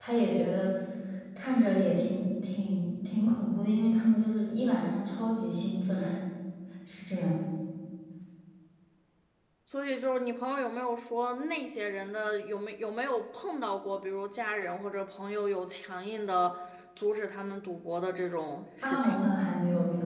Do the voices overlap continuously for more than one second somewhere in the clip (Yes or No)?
No